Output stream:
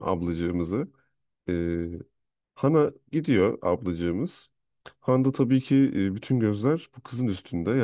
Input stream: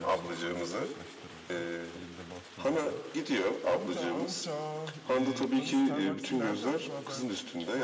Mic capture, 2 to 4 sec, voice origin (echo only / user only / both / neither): both